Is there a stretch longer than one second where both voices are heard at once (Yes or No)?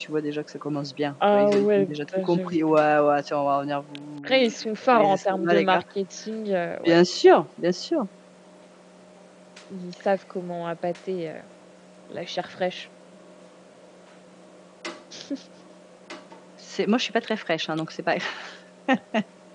Yes